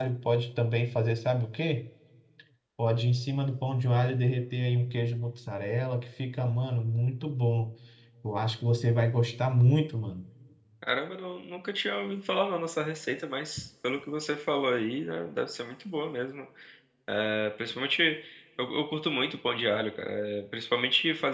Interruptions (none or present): none